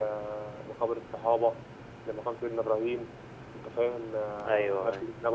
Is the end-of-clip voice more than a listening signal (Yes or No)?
No